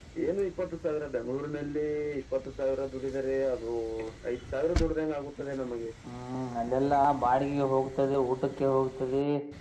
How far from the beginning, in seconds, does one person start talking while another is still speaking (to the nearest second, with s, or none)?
none